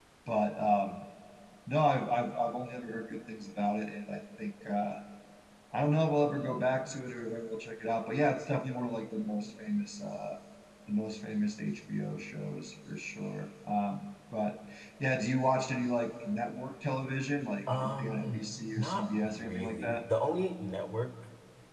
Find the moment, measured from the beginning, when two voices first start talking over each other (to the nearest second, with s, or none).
18 s